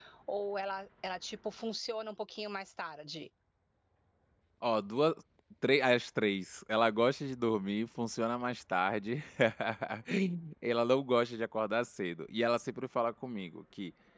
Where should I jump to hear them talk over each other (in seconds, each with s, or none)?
none